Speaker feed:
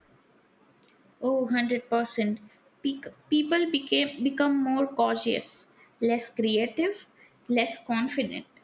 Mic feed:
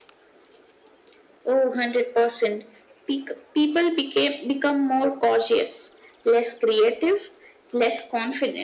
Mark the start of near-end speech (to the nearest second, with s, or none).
none